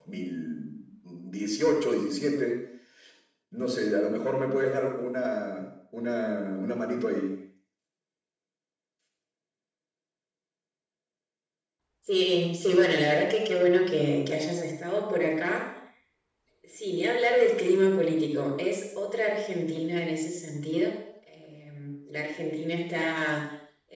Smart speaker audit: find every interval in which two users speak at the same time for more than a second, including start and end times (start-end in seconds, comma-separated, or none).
none